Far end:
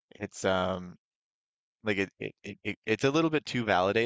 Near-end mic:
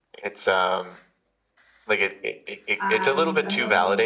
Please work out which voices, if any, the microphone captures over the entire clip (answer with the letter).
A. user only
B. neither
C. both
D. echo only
C